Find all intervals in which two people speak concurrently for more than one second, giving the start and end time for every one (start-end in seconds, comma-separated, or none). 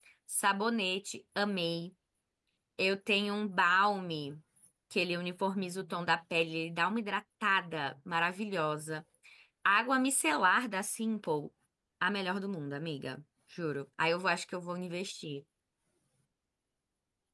none